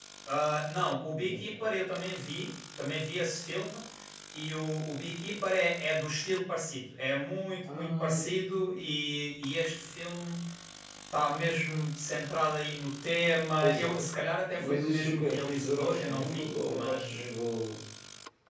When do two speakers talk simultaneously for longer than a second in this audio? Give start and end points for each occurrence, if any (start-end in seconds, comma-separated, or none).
14.6-17.3